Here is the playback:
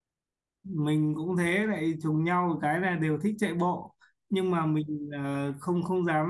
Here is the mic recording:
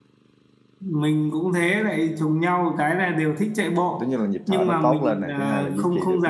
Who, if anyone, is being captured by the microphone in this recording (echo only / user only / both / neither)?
both